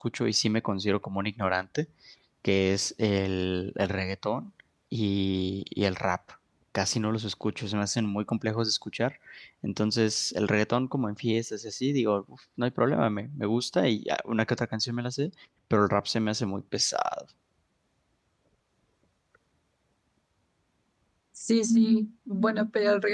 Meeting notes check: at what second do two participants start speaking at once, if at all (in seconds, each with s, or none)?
none